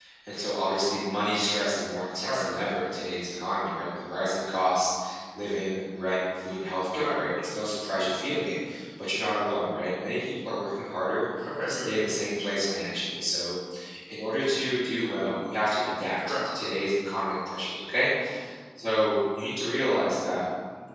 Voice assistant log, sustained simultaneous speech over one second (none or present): none